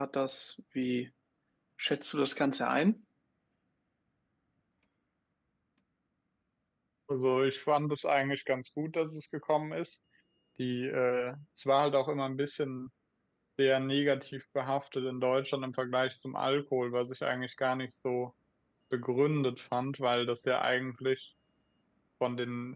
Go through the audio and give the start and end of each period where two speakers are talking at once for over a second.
none

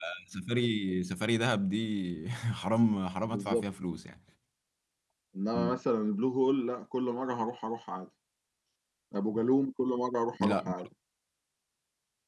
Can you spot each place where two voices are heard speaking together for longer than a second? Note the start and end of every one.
none

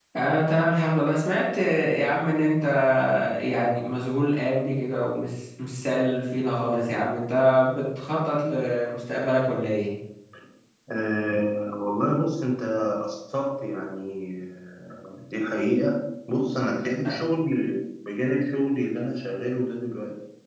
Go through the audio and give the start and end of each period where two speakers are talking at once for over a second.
none

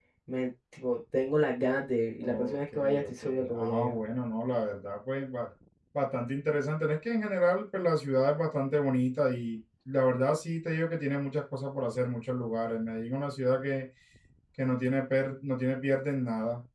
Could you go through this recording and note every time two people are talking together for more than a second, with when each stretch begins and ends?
2.2-3.9

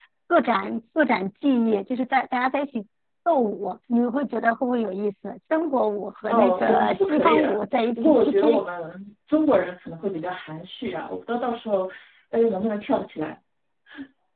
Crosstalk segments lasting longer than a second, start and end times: 6.3-8.6

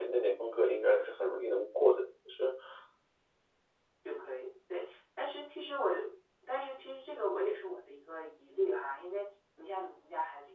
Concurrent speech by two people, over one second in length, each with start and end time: none

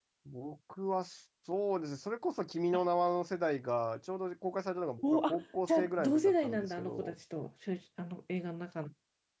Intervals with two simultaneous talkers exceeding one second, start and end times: 5.7-7.1

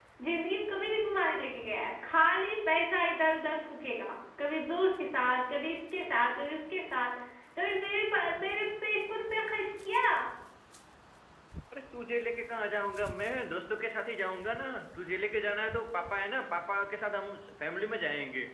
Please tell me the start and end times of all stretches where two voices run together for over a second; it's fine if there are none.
none

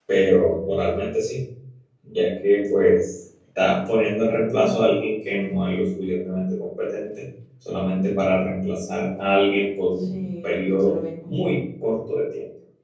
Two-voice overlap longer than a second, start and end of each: 10.0-11.3

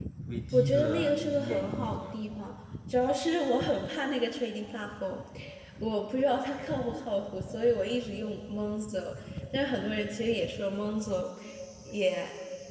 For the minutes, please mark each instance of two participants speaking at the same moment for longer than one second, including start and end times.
0.5-2.2

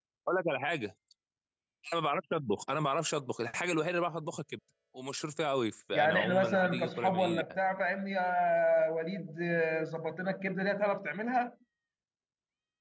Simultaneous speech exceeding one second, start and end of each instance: 5.9-7.4

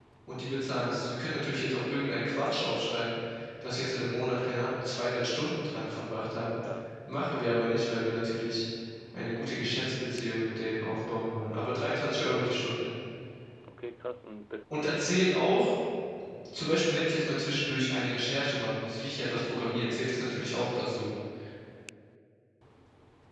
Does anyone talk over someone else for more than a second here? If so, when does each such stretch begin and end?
none

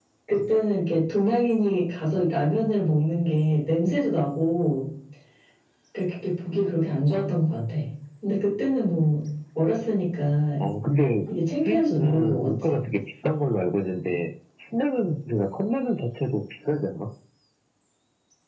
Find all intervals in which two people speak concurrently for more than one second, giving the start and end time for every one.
11.5-12.8

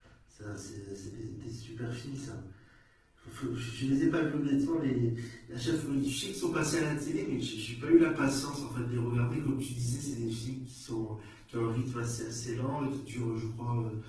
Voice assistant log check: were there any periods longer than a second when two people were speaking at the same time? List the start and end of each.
none

